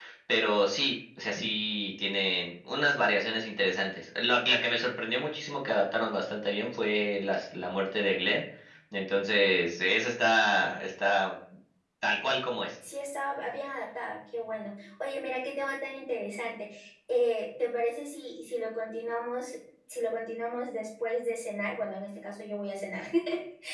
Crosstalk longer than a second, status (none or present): none